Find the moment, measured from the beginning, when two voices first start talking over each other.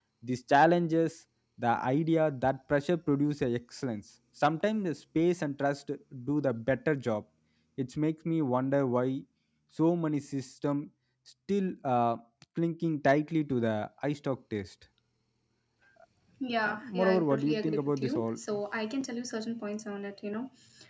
16.6 s

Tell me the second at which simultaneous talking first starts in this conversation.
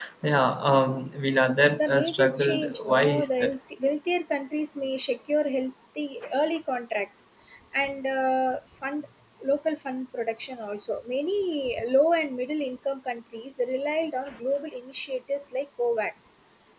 1.8 s

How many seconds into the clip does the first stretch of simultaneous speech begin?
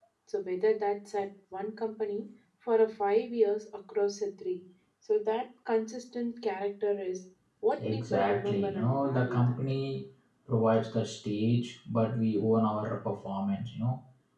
7.8 s

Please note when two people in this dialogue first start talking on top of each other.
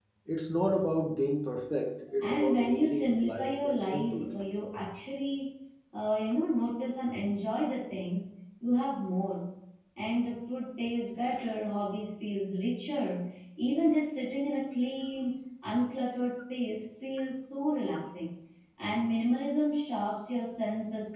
2.2 s

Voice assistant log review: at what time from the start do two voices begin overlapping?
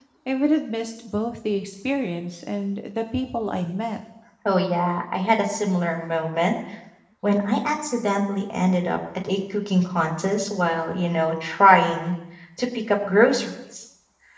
none

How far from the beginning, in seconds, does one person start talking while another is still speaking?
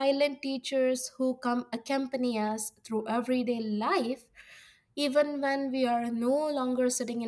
none

